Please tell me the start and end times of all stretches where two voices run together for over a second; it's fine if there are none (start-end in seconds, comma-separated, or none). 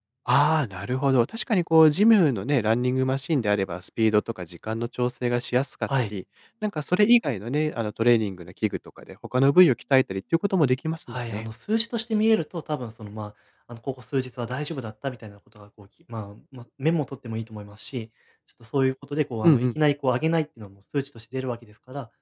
none